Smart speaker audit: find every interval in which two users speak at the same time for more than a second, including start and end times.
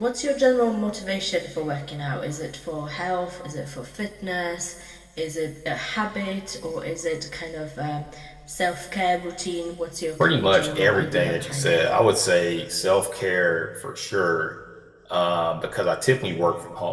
10.2-11.9

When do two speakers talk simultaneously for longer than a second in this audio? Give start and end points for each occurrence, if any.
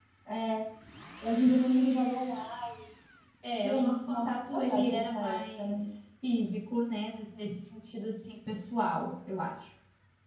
3.5-5.8

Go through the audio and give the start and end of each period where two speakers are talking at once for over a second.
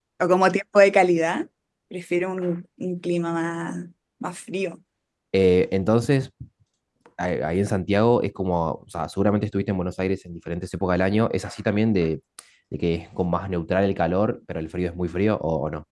none

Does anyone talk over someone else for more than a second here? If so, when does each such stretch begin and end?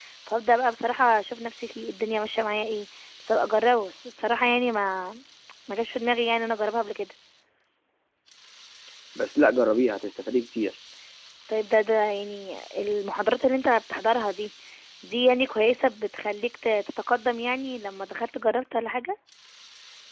none

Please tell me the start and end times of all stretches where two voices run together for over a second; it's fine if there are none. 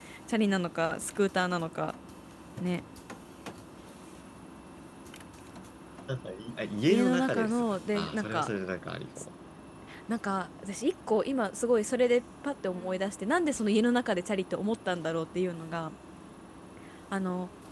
6.9-8.5

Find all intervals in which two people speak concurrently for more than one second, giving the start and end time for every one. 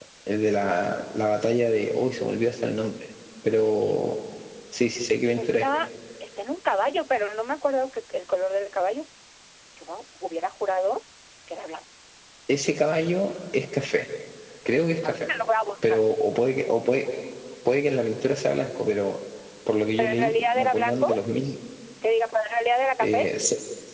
20.0-21.2

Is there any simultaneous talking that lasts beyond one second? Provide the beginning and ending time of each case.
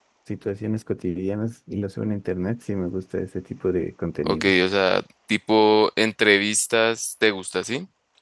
none

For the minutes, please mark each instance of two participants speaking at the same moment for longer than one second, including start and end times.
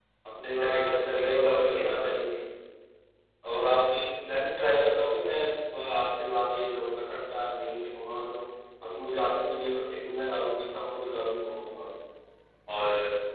0.5-2.3

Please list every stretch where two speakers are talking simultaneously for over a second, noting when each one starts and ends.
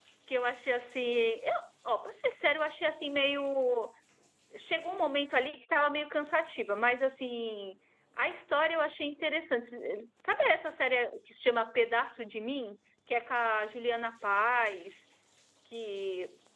none

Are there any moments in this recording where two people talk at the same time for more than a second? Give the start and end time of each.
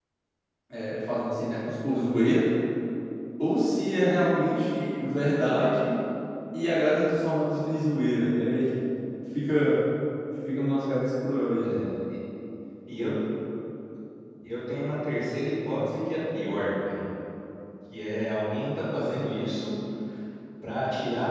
none

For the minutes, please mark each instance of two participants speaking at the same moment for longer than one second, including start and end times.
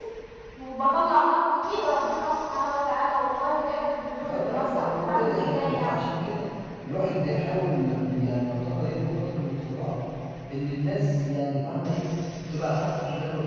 4.3-6.0

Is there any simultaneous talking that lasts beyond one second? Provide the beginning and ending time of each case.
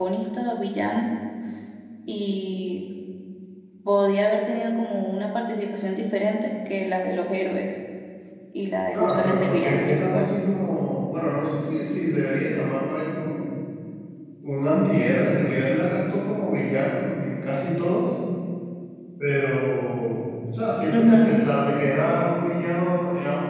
8.9-10.3

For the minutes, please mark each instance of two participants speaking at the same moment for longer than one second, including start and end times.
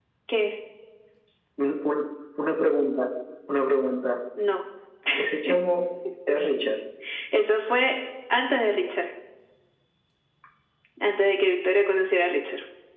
none

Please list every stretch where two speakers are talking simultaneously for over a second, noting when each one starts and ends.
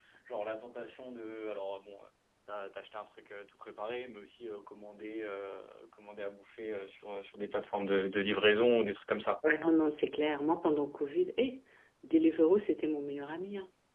none

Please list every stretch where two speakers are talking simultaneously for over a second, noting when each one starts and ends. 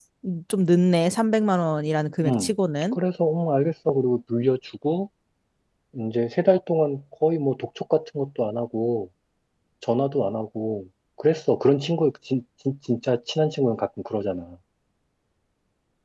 none

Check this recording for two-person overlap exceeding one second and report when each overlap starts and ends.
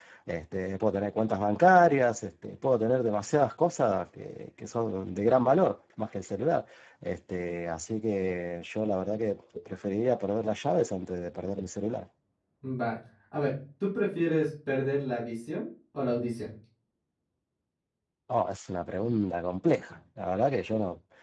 none

